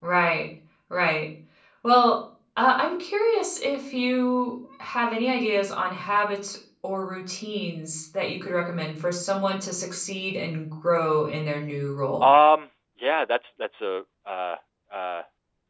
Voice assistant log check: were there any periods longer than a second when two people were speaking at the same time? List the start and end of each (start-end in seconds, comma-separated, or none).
none